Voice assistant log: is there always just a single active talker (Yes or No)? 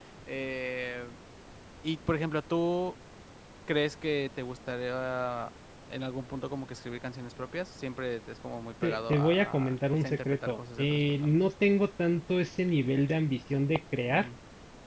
No